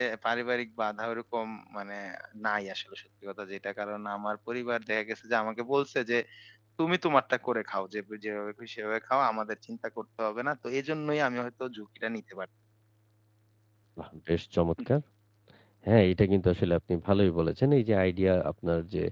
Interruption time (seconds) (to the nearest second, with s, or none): none